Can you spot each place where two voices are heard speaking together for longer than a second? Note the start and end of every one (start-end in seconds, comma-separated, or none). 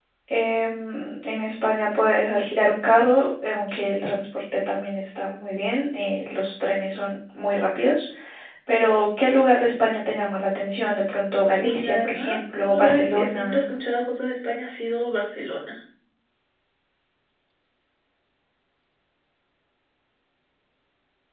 11.6-13.6